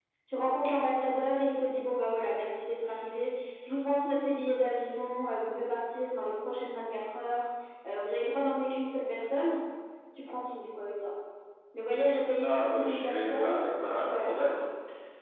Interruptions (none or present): present